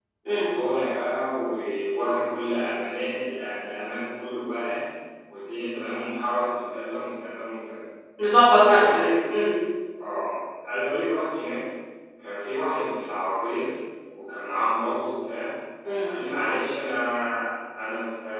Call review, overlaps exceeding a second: none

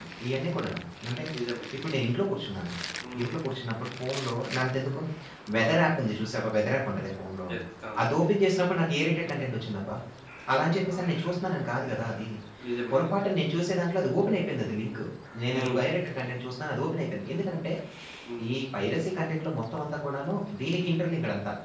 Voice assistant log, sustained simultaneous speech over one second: none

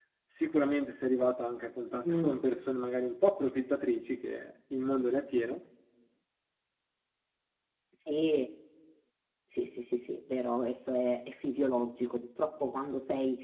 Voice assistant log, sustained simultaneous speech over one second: none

